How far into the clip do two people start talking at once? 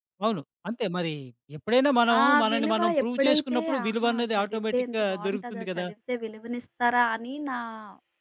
2.2 s

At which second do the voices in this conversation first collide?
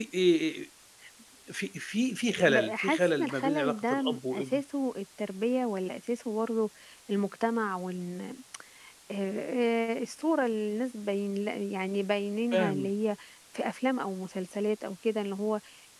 2.4 s

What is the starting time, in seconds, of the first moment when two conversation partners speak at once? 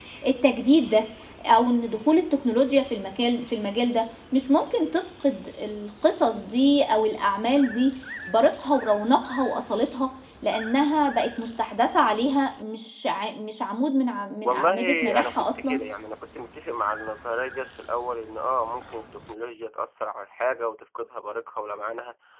14.4 s

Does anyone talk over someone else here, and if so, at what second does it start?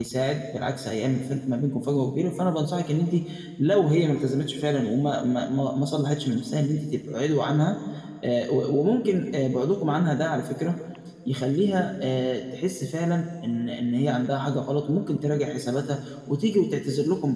none

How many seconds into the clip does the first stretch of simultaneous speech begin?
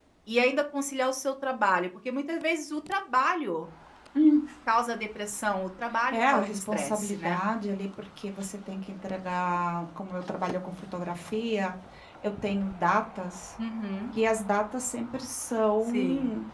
6.1 s

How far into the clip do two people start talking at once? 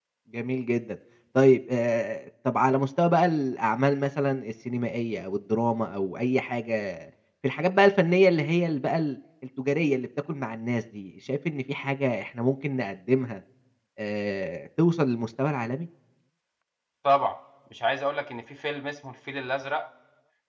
none

